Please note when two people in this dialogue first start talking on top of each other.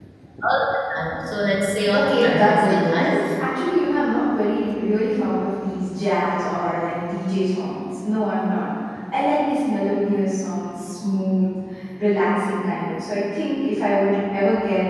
1.9 s

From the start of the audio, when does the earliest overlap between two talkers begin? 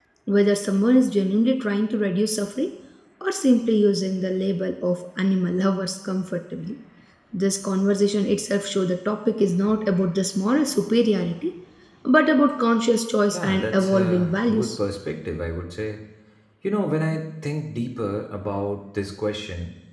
13.3 s

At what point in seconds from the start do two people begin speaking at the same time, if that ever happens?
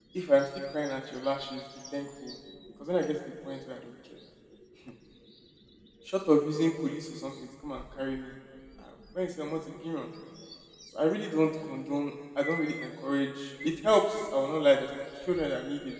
none

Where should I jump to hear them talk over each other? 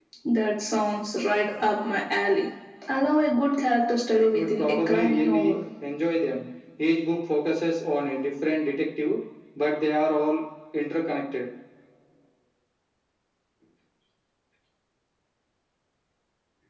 4.3 s

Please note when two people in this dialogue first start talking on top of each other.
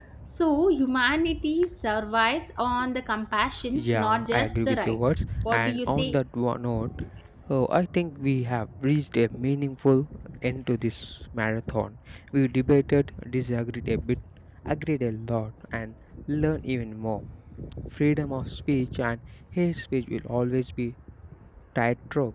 3.7 s

